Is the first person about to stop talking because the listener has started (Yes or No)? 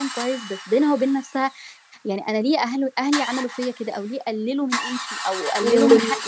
Yes